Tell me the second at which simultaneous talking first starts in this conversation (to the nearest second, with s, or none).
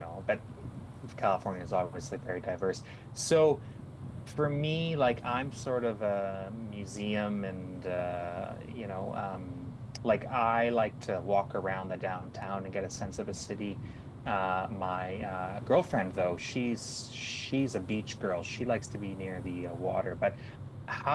none